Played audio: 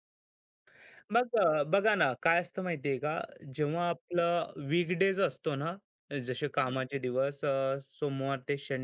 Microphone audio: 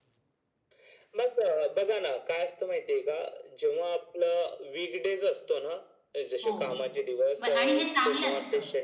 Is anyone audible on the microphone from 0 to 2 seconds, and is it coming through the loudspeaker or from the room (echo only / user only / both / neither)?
echo only